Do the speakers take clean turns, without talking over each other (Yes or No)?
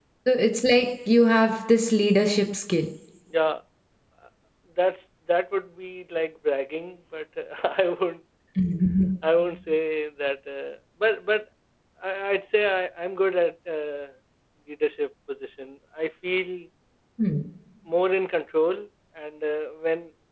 Yes